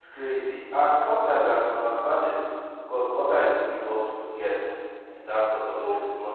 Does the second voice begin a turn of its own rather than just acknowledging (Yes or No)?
No